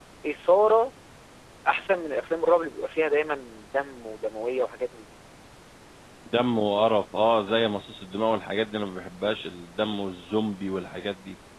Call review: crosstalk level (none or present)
none